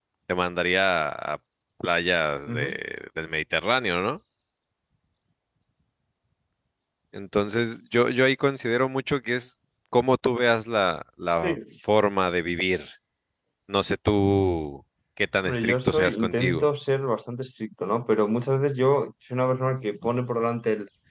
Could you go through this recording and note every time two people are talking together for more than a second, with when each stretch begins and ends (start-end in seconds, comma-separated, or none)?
15.4-16.6